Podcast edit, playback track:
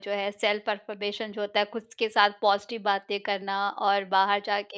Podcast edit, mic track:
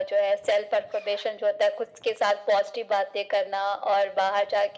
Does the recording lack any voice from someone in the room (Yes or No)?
Yes